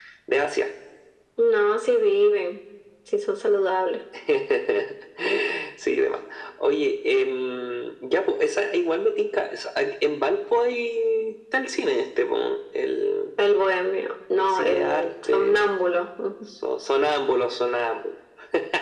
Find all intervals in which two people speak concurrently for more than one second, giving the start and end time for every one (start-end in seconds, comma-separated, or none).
14.4-15.8